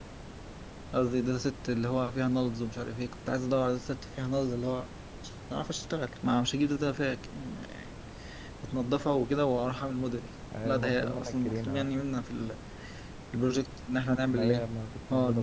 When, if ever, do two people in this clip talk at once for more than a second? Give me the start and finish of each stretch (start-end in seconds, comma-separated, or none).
10.6-11.9